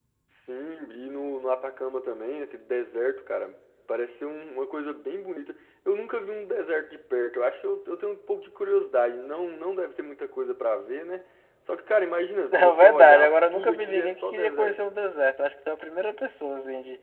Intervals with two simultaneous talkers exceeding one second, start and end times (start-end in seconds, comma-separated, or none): 12.5-14.8